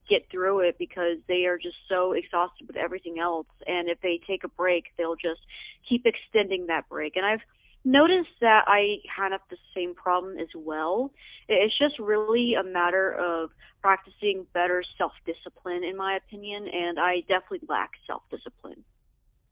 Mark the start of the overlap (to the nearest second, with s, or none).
none